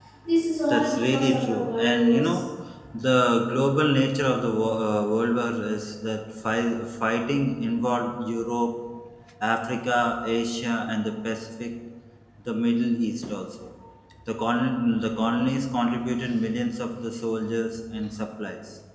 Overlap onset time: 1 s

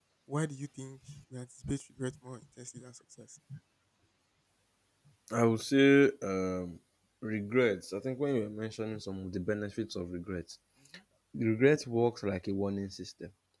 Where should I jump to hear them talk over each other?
none

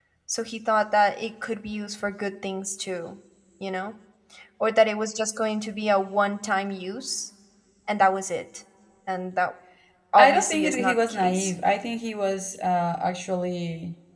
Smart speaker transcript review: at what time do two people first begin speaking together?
10 s

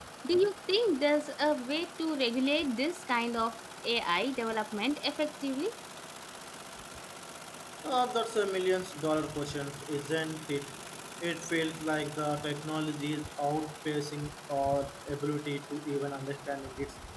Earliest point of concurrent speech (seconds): none

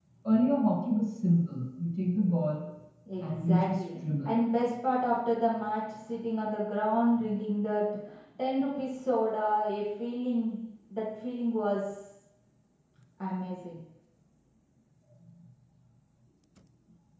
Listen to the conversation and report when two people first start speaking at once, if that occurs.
3 s

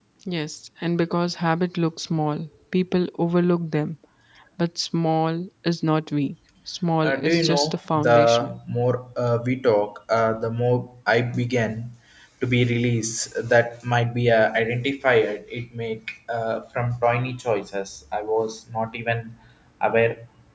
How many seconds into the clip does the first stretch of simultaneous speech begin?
7 s

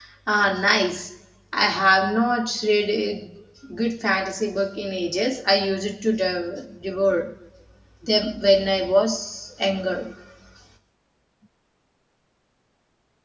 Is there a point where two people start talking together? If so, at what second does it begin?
none

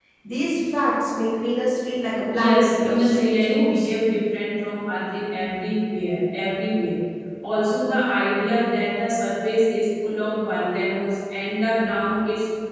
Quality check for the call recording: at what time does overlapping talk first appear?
2 s

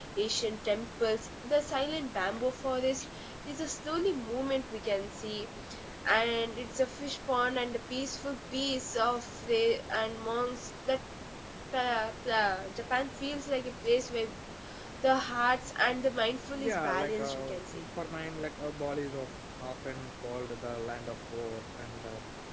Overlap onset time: 16 s

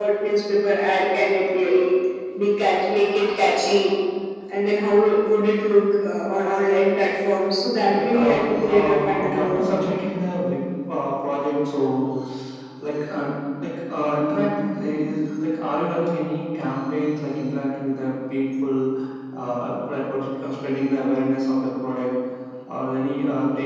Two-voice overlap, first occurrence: 8 s

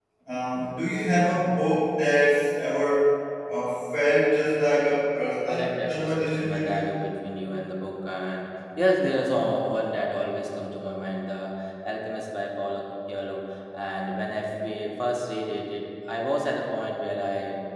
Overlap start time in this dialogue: 5 s

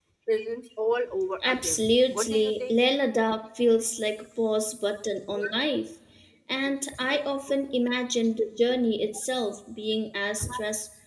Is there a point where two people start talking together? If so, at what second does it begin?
1 s

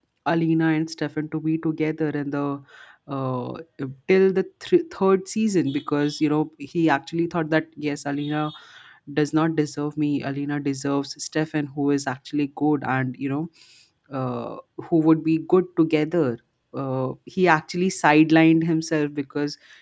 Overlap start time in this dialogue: none

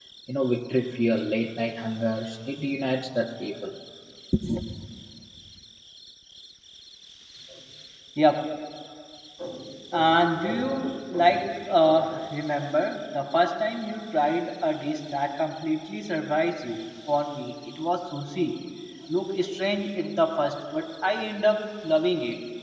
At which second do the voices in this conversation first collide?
none

